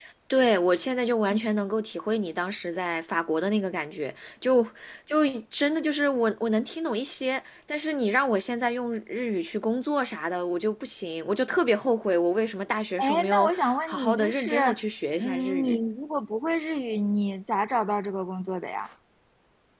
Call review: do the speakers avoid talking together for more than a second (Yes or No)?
No